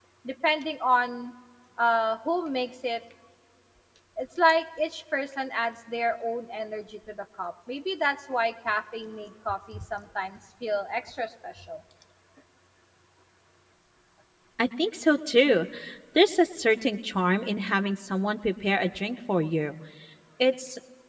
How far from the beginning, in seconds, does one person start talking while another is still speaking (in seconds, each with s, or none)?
none